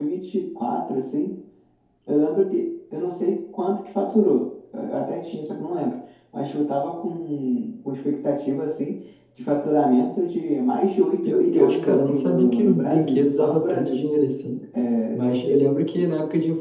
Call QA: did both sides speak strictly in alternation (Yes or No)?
No